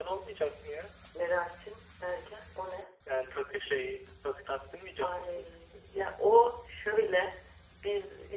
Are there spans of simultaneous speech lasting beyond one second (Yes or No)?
No